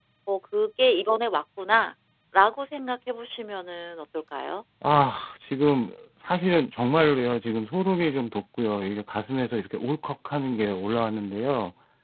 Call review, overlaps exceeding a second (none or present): none